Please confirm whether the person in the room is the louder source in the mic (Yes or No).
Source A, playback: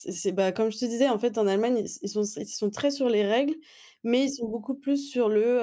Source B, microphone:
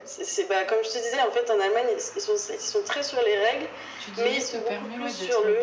No